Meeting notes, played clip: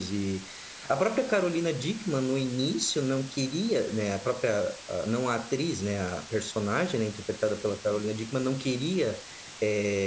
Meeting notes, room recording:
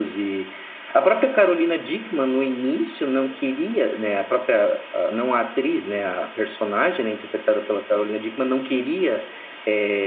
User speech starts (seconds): none

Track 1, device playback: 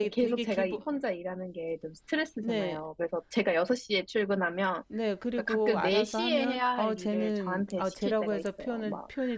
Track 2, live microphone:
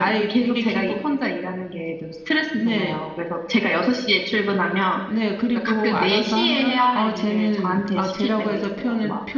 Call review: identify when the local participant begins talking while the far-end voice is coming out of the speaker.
none

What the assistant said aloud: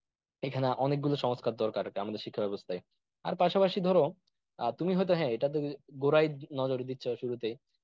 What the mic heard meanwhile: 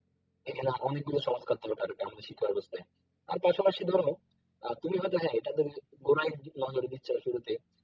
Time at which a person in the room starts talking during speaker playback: none

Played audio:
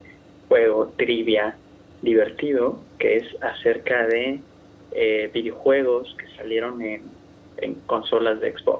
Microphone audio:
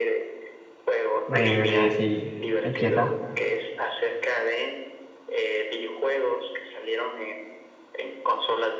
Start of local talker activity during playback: 1.3 s

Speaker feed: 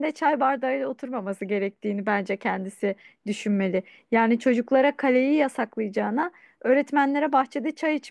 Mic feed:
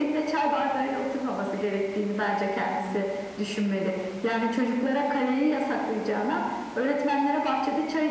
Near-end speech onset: none

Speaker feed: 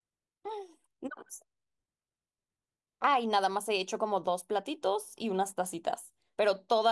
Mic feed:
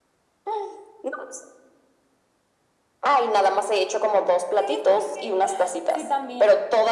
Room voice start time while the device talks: 4.6 s

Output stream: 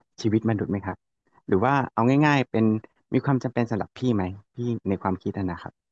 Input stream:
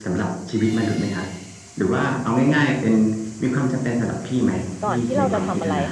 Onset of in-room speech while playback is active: 4.8 s

